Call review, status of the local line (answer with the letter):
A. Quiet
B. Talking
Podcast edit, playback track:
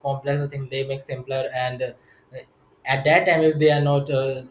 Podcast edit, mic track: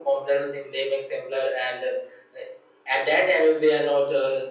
A